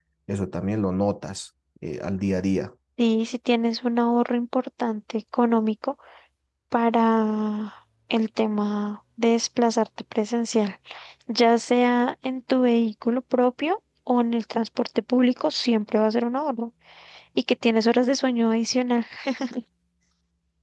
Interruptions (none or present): none